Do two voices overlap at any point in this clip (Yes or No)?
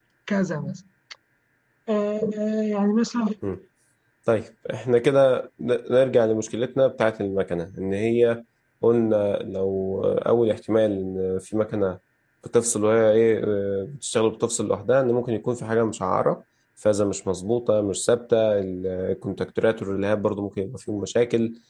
No